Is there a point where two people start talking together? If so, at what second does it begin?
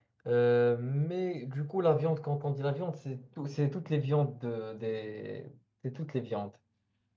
none

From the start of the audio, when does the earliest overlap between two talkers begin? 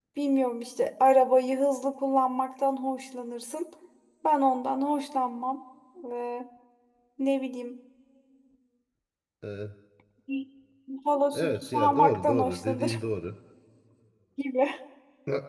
11.3 s

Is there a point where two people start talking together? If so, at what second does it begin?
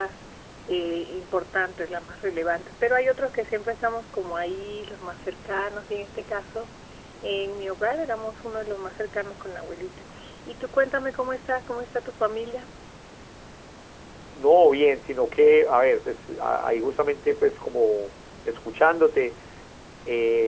none

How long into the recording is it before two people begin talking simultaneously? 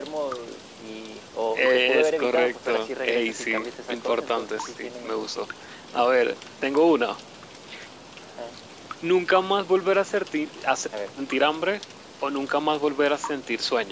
1.5 s

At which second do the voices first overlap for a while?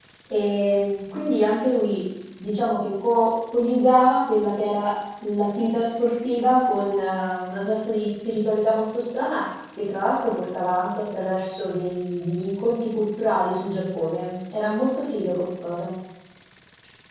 none

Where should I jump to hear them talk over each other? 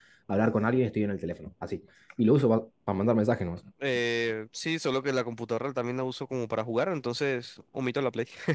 none

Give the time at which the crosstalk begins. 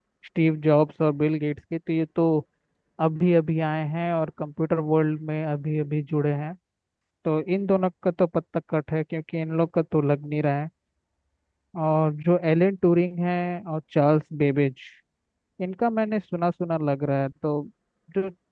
none

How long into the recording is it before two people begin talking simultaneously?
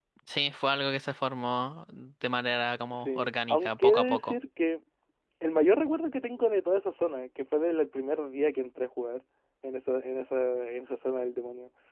3.0 s

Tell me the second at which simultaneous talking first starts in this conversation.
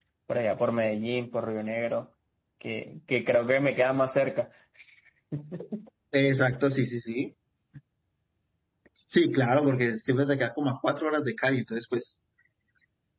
none

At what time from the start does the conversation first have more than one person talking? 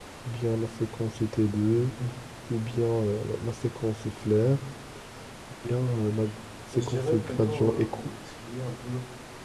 6.7 s

